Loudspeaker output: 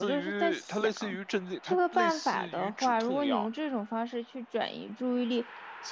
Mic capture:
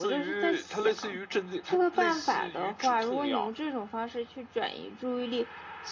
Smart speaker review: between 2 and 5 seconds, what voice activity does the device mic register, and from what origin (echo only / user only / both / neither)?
echo only